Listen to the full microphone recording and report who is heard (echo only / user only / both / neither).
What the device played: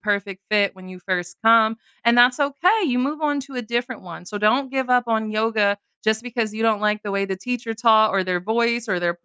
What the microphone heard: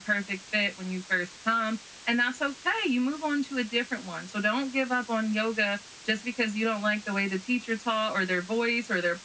echo only